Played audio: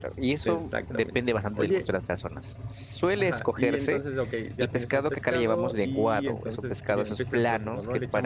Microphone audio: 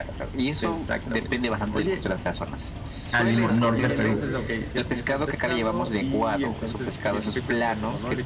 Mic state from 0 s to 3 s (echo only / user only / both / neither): echo only